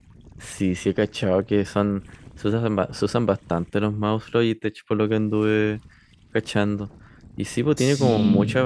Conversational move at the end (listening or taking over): listening